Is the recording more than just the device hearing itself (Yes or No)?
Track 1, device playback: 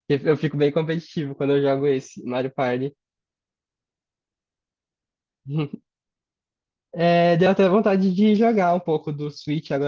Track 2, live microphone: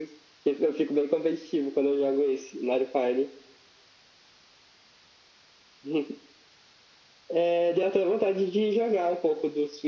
No